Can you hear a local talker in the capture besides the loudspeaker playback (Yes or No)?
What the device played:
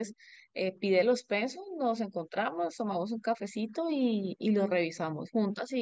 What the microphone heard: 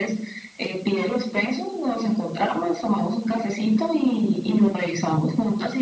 No